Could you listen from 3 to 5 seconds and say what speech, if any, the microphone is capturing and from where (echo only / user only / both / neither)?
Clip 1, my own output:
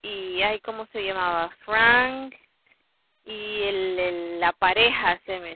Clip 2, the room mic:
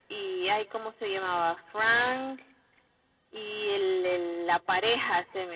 echo only